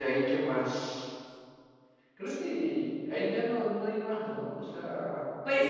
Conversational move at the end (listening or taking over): taking over